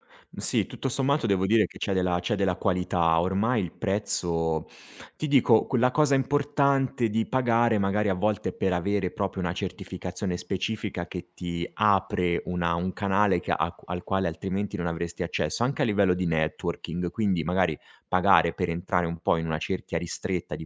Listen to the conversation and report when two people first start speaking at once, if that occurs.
none

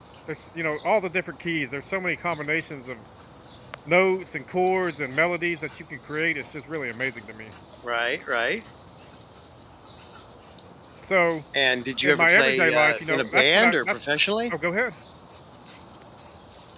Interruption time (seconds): 12.0 s

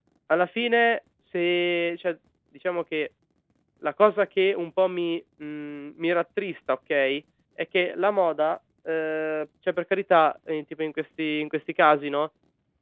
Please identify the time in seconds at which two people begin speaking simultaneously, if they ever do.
none

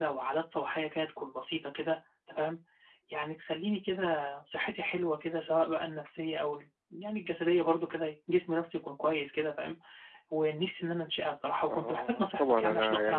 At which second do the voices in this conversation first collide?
11.7 s

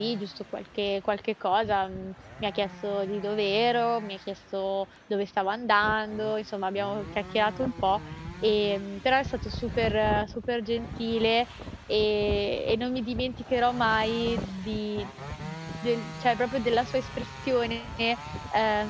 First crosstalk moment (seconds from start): none

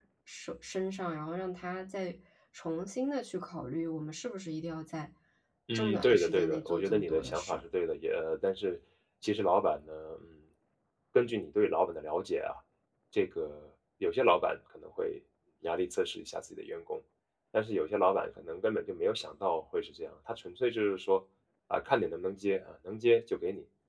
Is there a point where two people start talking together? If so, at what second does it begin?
5.7 s

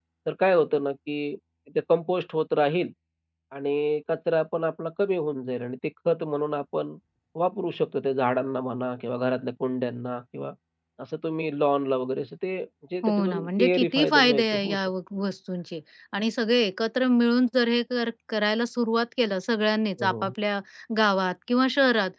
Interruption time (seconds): 13.0 s

